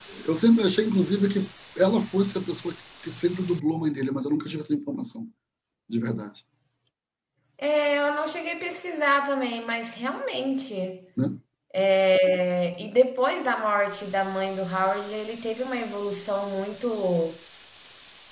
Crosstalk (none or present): none